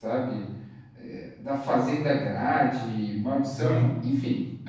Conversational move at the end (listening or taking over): listening